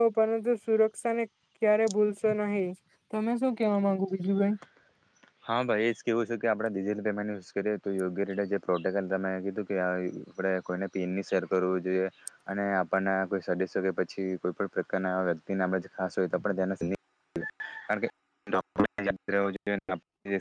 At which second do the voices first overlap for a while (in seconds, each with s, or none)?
none